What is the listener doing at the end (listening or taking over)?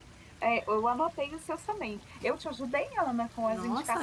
taking over